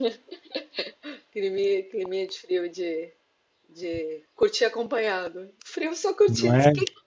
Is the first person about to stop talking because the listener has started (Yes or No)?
No